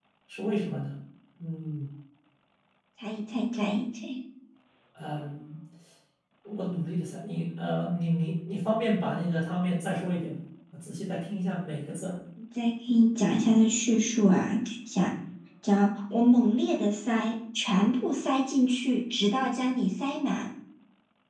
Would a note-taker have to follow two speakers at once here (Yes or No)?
No